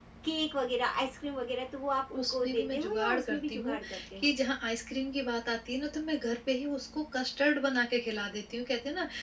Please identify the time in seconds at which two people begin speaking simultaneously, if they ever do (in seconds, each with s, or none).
2.1 s